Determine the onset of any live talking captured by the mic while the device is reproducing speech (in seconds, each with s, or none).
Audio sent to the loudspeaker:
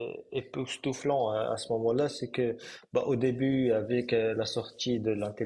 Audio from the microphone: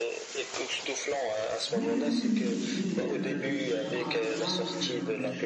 1.7 s